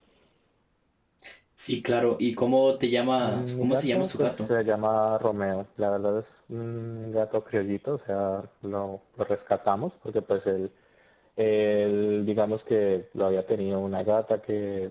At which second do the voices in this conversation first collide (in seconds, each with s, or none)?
3.2 s